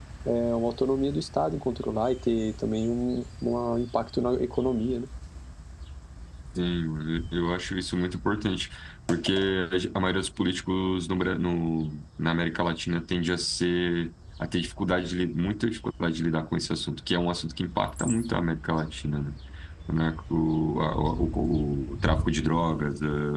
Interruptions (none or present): none